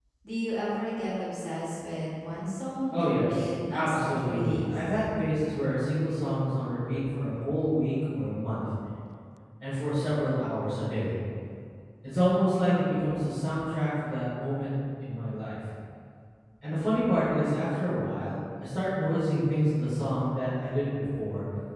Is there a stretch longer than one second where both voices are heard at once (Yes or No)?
Yes